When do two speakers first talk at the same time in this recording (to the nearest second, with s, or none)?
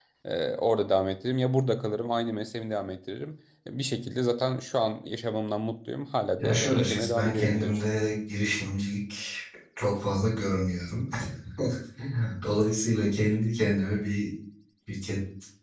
6 s